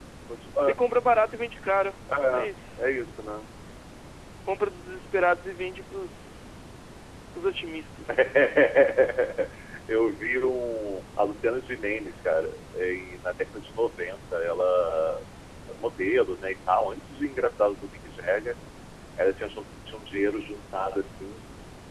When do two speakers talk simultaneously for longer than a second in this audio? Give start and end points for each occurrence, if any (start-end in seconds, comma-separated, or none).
none